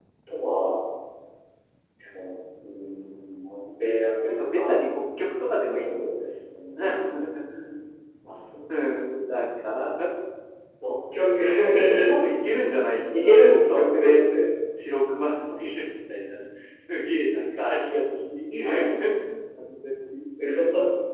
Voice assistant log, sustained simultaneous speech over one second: present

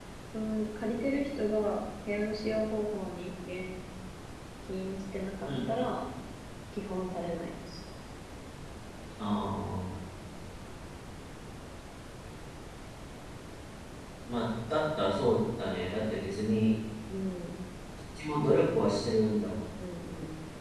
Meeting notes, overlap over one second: none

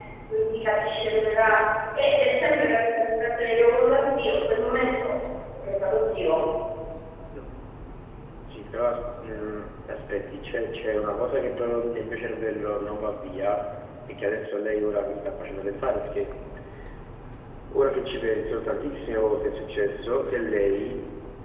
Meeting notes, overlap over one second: none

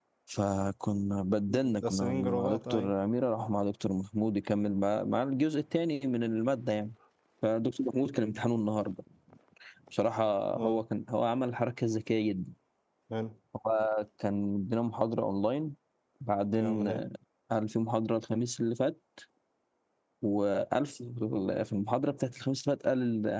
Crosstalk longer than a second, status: present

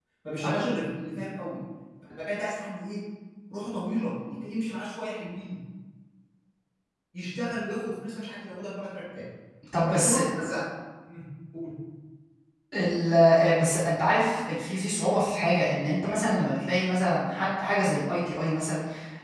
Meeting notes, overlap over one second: none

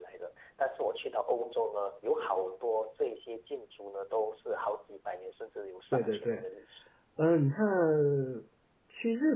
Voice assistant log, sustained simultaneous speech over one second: none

